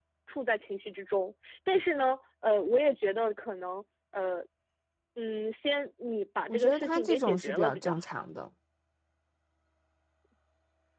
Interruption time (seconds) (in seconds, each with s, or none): 6.5 s